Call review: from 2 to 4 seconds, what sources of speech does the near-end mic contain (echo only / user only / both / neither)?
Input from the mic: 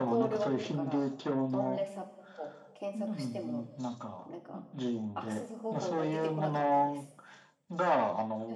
both